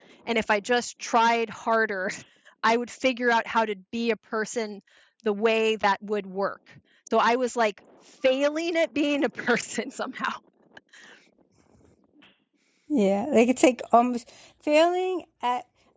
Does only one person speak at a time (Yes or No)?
Yes